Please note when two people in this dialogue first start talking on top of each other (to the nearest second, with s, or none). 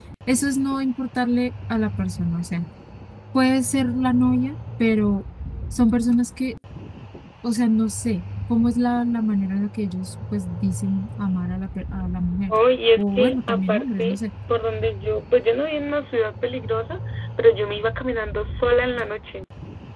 13 s